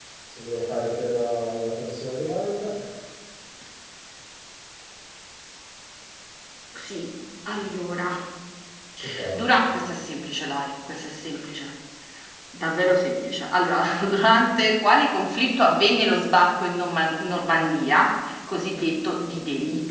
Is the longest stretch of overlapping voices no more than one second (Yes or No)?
Yes